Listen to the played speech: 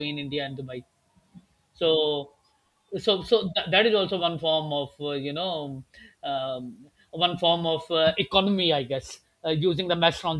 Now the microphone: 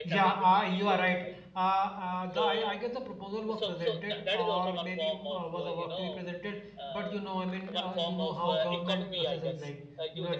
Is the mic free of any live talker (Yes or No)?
No